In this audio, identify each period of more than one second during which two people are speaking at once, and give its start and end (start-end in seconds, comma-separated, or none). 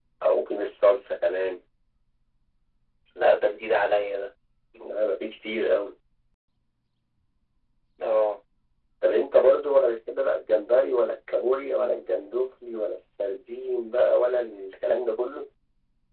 none